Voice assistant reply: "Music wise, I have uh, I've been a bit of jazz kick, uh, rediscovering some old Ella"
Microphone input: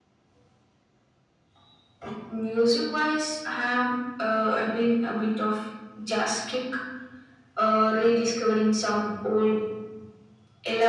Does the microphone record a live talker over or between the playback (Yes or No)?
No